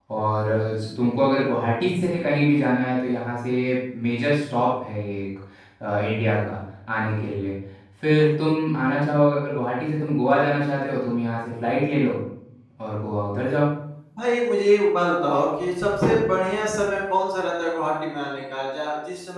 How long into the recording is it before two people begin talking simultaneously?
none

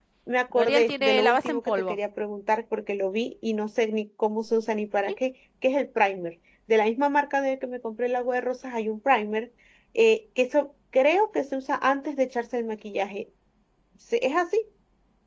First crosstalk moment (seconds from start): 0.5 s

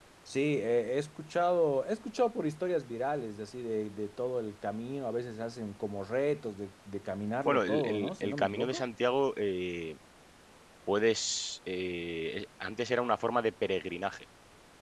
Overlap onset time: 7.4 s

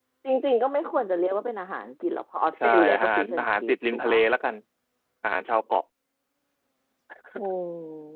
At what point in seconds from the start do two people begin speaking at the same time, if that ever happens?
2.6 s

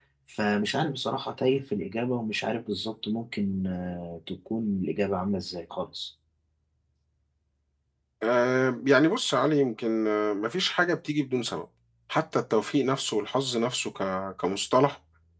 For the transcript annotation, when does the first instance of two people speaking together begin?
none

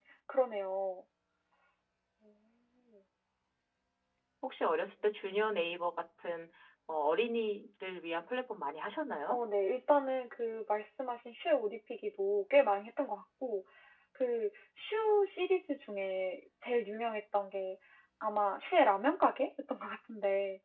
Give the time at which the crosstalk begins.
none

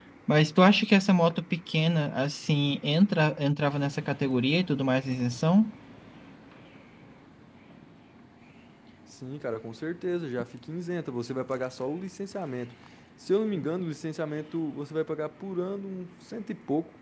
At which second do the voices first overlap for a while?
none

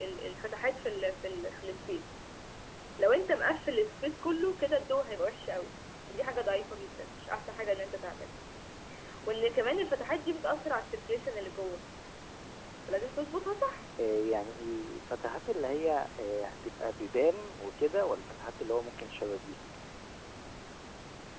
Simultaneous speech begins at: none

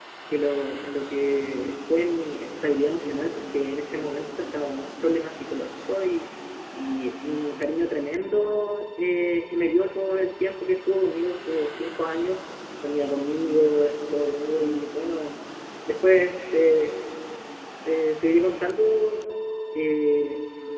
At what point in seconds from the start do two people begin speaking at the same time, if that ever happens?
none

